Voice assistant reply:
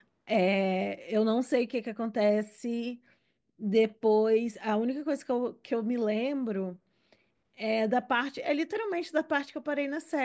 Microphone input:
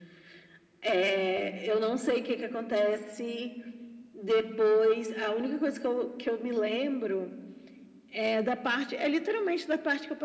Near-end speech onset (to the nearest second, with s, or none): none